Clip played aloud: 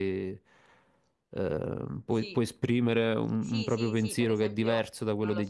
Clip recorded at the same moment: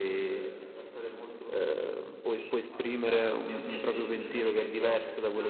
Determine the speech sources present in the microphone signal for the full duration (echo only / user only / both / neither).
both